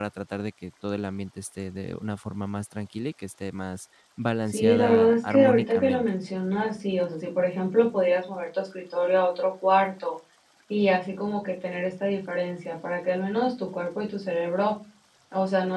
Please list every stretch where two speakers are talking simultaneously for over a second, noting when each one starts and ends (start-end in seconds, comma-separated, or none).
4.5-6.0